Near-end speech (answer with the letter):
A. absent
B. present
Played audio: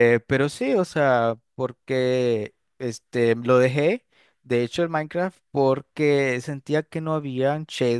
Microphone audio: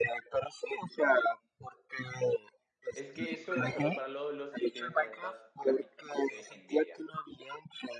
B